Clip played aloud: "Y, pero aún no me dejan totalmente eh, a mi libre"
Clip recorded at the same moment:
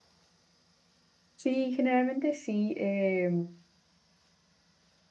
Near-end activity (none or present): present